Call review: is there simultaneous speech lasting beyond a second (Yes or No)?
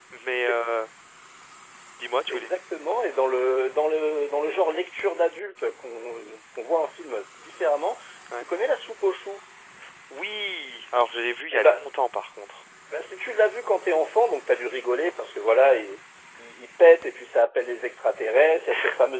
No